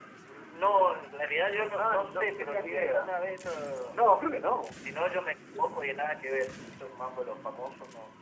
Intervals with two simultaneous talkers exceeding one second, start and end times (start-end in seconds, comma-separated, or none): 1.8-3.1